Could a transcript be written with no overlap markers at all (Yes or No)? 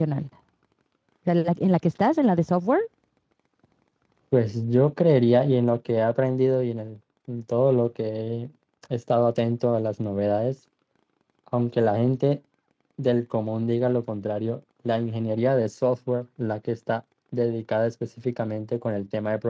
Yes